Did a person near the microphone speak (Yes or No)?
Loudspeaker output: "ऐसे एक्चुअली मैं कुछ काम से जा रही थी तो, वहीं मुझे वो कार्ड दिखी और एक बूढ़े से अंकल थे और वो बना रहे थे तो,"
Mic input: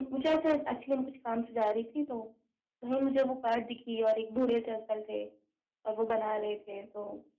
No